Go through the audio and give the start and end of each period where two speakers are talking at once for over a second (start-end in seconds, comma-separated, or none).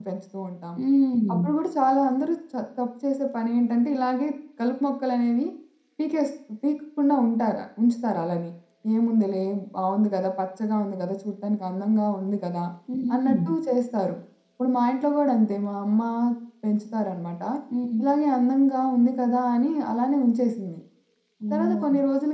none